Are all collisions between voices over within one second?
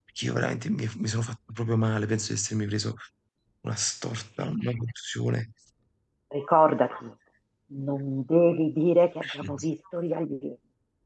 Yes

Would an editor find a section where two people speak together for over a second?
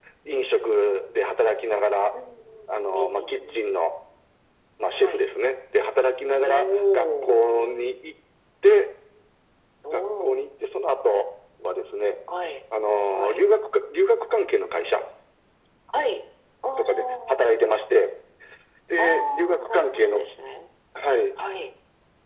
Yes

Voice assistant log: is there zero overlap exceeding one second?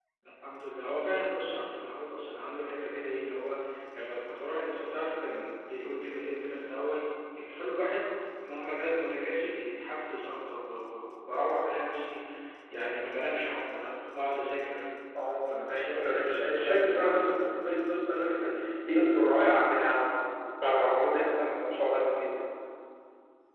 No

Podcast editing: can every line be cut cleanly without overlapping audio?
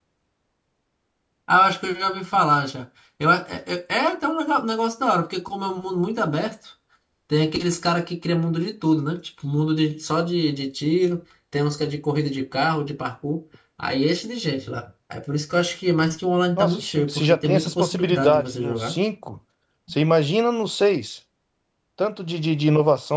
No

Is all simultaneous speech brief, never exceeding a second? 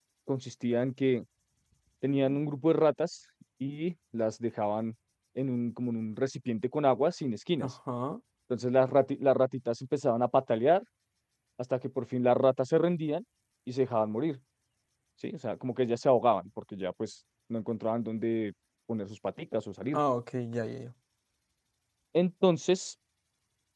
Yes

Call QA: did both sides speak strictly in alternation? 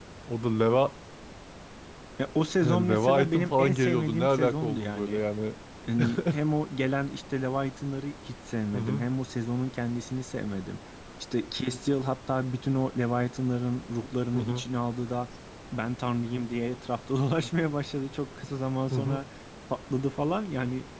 No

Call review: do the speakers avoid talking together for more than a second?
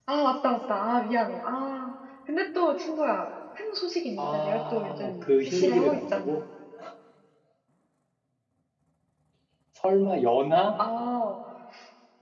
No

